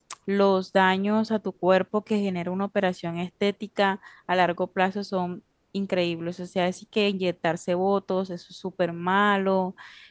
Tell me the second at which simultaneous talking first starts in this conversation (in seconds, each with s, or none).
none